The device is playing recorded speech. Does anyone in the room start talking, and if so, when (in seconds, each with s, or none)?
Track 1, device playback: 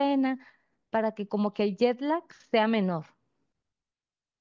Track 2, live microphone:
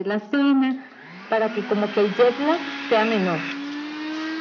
none